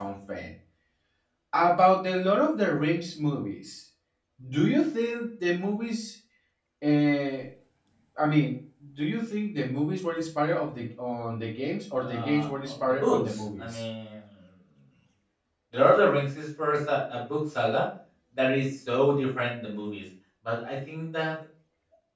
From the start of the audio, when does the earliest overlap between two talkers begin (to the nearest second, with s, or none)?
12 s